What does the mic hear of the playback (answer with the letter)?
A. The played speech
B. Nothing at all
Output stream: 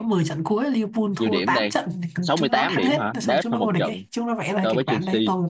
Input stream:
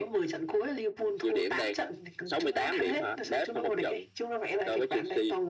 A